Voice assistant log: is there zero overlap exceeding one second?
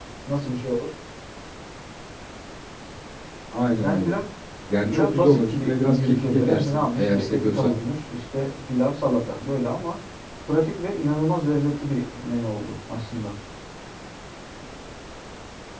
No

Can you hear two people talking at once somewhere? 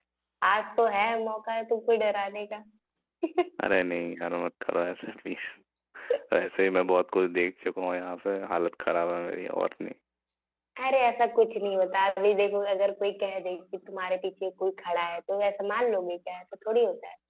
No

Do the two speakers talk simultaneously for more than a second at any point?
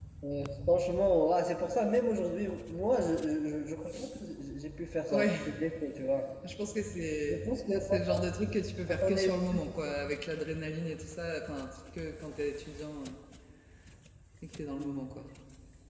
No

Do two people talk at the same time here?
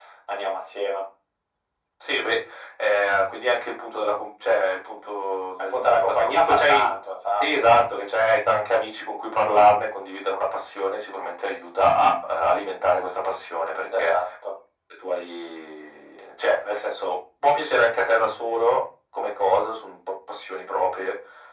Yes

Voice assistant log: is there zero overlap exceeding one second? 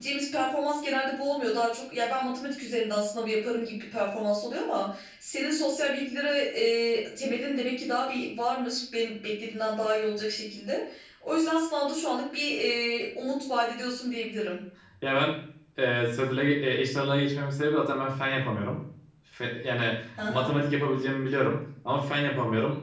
Yes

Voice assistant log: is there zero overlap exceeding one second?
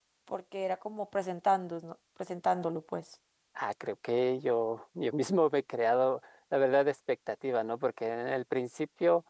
Yes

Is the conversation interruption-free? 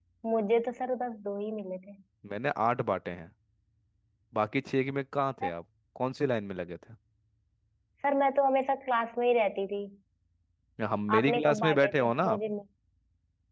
No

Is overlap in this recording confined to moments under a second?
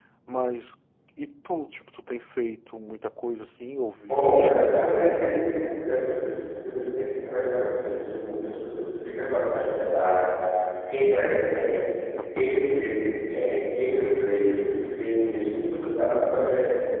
No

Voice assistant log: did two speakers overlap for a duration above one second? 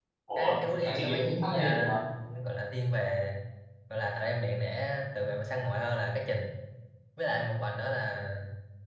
Yes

